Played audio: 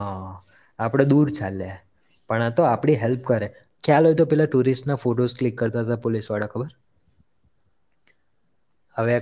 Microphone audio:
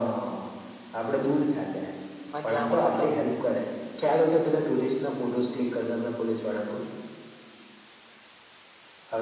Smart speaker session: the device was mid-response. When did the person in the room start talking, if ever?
2 s

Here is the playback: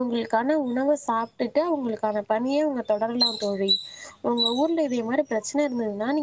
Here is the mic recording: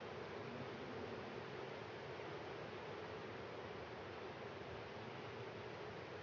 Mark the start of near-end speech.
none

